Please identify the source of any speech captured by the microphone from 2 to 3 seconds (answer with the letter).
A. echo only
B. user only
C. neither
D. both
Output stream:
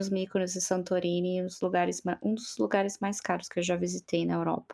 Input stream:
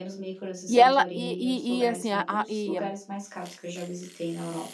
D